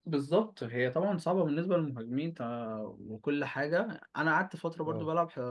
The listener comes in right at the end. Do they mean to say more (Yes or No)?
No